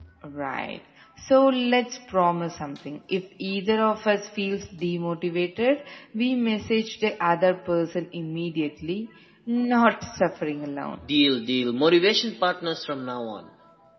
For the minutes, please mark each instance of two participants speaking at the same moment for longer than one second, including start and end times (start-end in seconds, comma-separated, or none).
none